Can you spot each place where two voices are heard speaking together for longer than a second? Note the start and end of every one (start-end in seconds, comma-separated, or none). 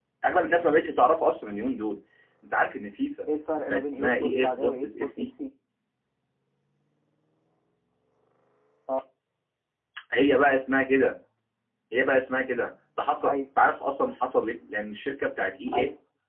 3.7-5.3